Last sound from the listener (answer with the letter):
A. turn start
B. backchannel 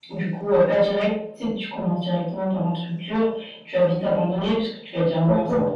A